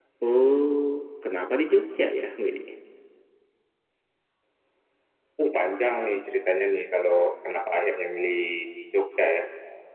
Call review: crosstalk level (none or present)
none